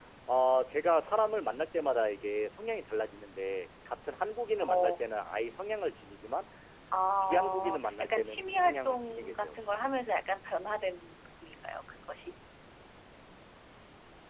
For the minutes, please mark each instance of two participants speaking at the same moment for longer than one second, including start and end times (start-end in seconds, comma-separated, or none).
7.2-9.6